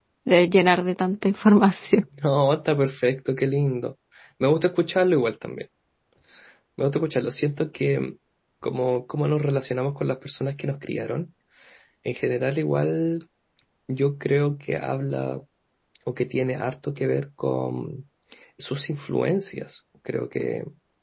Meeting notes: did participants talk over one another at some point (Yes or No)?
No